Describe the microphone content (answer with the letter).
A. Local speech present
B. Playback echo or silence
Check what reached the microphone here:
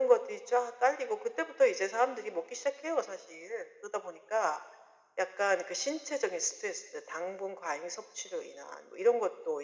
B